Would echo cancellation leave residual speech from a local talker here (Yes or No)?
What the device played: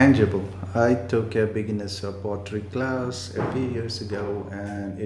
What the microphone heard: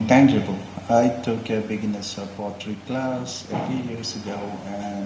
No